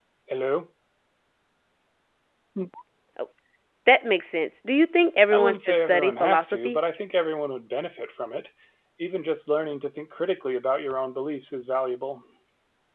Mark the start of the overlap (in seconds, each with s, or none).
5.3 s